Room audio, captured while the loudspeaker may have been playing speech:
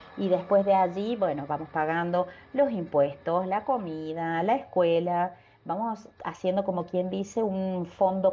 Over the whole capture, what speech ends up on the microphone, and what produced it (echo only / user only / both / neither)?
user only